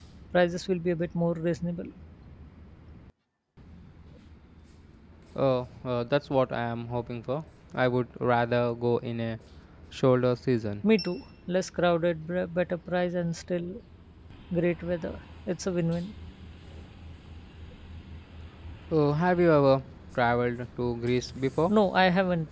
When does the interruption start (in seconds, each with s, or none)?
none